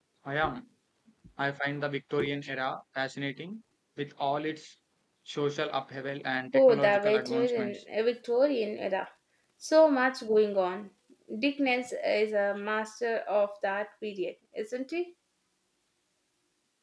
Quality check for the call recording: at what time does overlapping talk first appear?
6.5 s

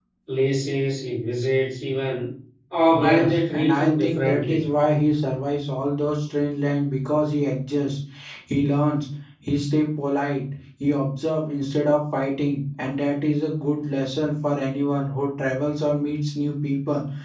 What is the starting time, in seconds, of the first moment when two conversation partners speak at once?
3.0 s

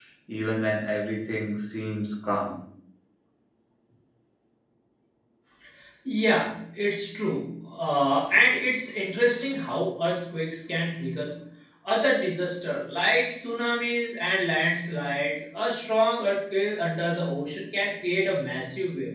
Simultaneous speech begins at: none

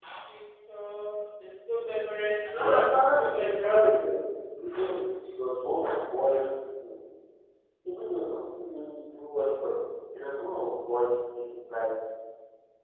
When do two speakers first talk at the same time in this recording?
2.5 s

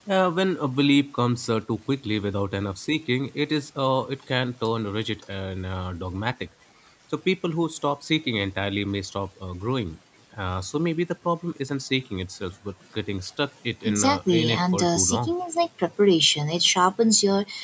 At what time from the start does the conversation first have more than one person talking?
13.8 s

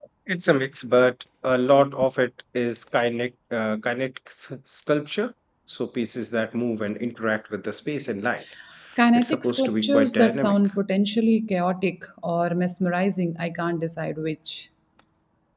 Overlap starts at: 9.2 s

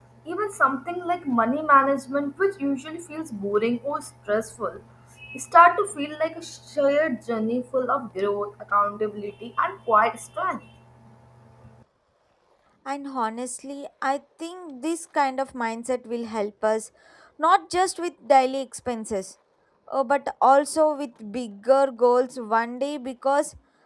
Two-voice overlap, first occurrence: none

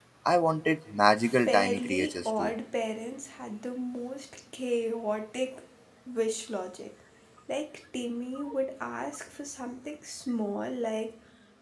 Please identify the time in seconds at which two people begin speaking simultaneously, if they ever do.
1.2 s

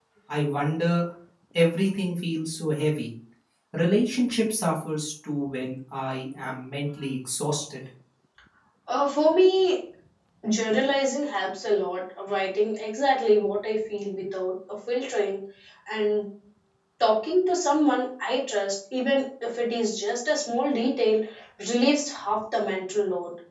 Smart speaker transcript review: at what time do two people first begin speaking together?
none

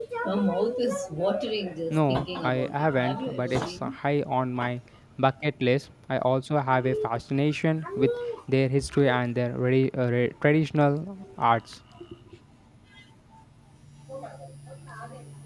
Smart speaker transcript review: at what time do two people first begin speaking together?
1.9 s

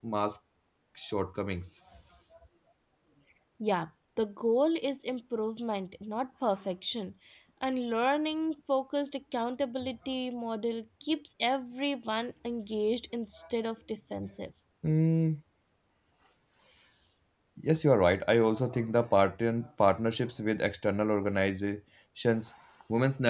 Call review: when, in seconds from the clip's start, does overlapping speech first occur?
none

